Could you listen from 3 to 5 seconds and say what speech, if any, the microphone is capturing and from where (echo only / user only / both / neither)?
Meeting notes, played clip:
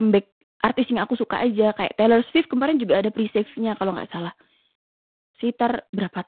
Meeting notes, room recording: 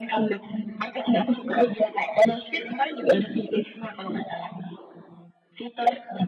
echo only